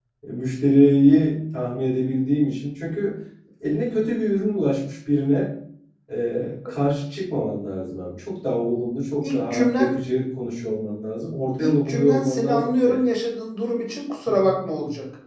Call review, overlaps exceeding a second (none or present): present